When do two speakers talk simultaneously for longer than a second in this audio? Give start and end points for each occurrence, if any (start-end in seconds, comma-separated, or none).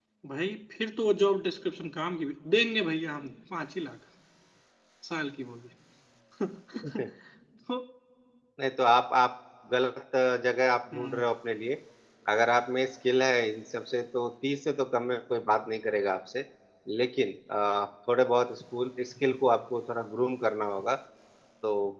none